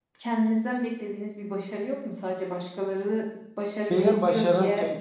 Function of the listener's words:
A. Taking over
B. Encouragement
A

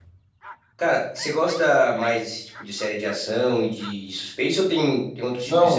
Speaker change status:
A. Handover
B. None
A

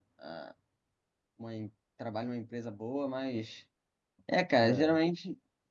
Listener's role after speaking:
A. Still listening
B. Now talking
A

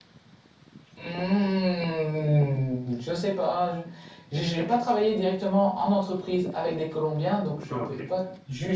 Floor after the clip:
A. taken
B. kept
B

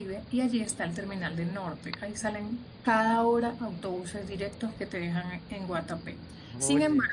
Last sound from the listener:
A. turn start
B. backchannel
B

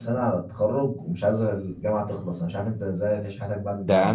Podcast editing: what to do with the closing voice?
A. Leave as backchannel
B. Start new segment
B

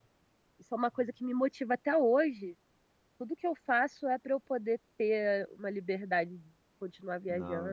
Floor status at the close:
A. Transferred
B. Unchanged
A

